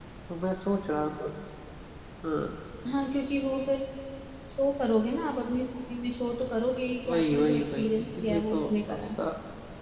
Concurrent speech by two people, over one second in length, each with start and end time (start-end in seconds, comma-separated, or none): 7.0-9.1